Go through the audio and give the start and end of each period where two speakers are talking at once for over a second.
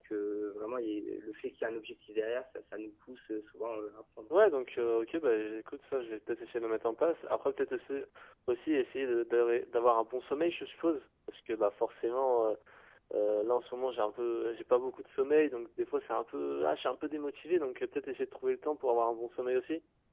none

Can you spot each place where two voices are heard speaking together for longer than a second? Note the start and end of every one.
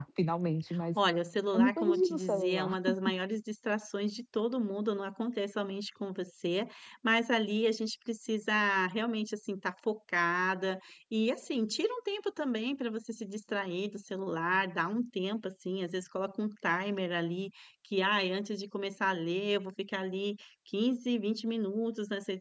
1.5-2.8

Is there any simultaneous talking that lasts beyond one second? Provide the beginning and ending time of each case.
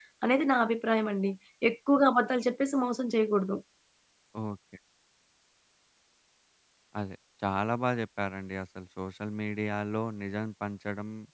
none

